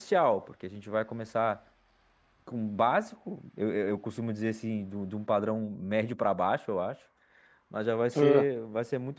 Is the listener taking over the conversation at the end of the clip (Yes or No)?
No